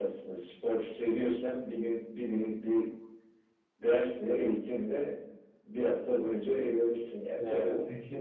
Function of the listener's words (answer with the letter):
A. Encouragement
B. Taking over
B